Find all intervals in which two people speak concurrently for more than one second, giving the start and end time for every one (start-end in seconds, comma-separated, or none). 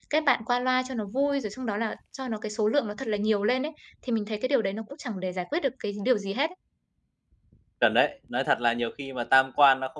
none